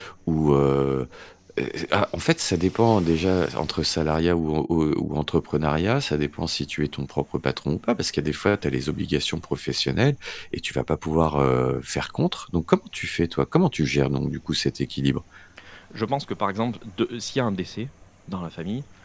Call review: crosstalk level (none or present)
none